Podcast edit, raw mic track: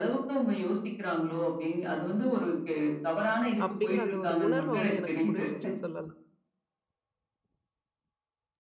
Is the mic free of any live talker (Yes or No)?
No